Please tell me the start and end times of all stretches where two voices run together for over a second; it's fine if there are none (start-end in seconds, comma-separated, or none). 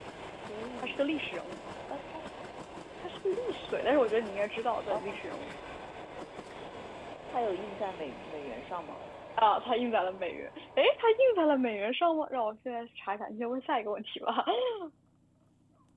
none